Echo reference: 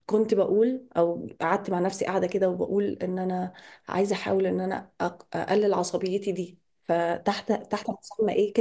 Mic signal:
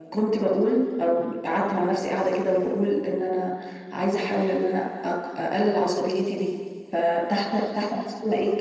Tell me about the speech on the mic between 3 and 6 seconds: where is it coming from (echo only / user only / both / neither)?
echo only